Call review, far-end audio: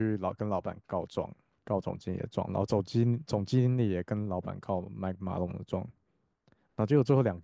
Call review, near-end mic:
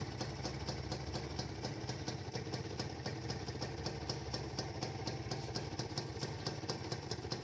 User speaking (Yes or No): No